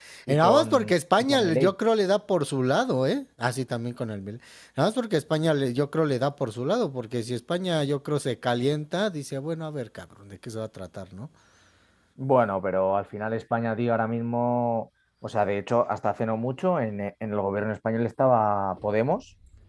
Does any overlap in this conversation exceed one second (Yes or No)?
Yes